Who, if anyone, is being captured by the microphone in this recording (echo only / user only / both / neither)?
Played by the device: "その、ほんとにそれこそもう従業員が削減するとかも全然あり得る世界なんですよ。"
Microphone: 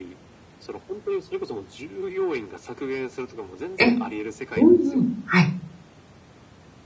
both